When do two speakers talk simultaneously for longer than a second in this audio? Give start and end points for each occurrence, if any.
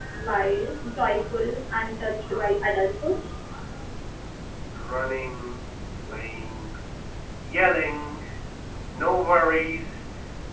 none

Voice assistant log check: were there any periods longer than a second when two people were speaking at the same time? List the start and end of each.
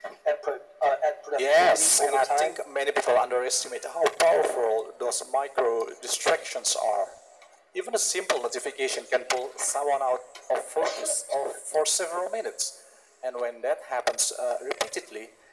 1.4-2.6

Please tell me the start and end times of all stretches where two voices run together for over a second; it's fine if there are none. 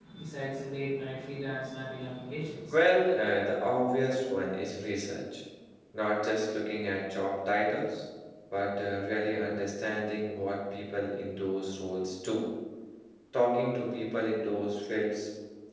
none

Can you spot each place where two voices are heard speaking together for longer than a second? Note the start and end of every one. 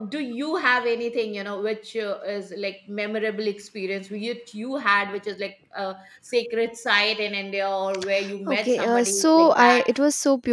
8.5-9.9

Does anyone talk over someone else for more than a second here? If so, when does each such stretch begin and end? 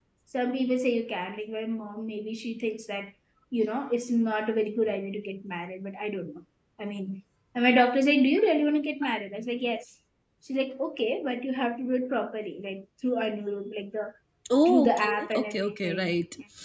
14.7-16.1

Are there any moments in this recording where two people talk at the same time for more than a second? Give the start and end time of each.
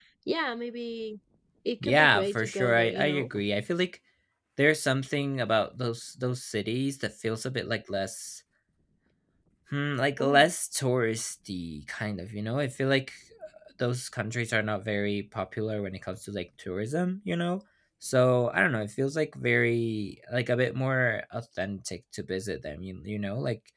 1.8-3.3

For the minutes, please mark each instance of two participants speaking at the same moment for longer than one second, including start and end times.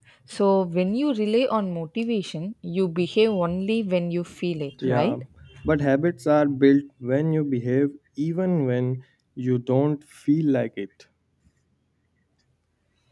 none

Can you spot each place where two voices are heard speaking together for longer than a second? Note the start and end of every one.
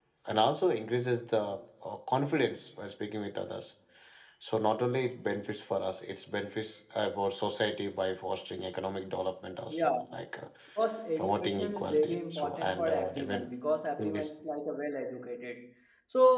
11.2-13.5

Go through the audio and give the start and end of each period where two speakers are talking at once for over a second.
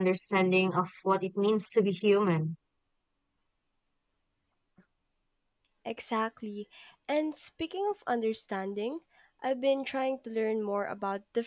none

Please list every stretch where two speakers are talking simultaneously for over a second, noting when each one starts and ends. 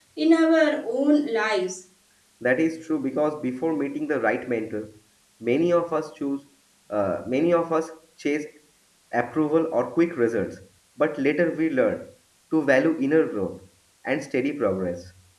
none

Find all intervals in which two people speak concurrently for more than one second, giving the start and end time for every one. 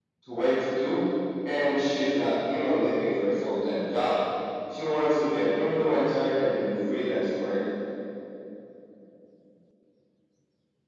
none

